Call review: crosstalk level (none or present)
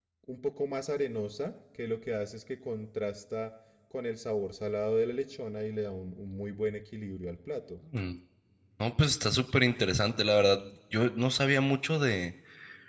none